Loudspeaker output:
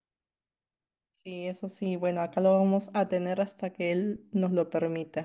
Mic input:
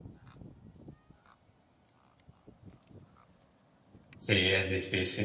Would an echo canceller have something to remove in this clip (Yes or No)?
No